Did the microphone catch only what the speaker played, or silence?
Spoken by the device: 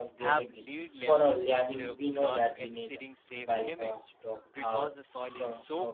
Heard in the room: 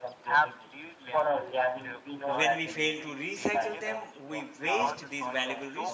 No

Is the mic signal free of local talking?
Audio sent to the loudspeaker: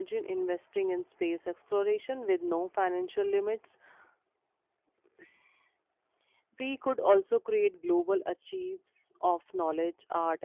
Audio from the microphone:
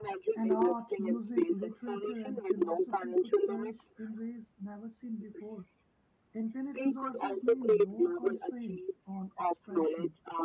No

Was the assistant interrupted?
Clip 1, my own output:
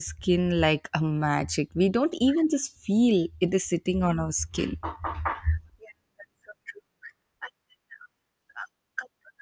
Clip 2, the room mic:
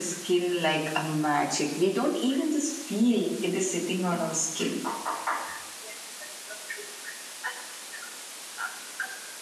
No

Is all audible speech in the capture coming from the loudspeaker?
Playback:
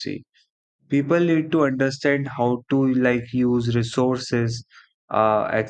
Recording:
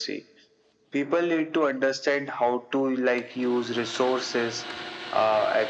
Yes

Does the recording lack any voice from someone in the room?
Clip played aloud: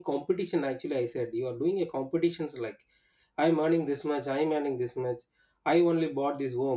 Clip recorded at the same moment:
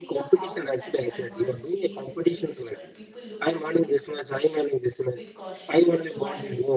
No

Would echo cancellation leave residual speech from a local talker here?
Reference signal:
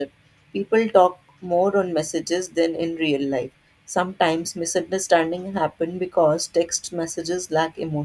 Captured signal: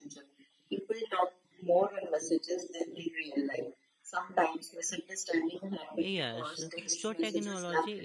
Yes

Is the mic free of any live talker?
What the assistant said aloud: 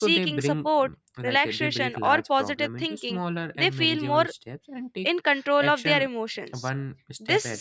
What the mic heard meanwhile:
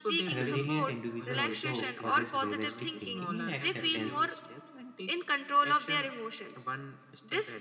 No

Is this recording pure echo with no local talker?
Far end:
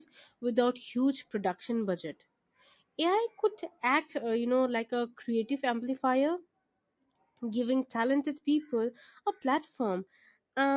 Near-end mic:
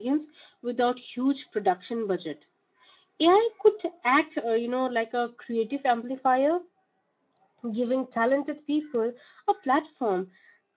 Yes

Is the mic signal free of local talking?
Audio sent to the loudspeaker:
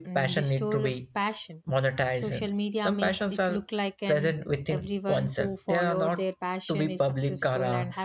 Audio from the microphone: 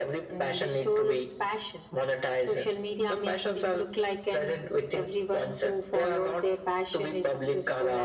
Yes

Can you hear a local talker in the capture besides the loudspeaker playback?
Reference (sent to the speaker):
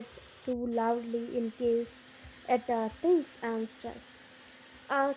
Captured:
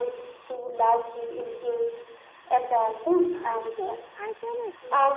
Yes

